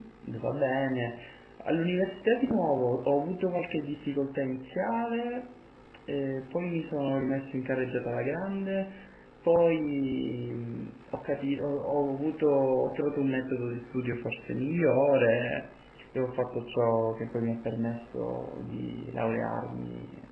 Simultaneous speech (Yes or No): No